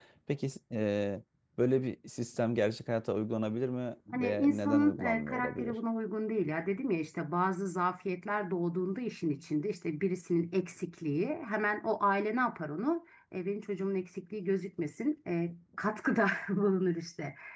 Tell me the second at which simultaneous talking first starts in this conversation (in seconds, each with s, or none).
4.1 s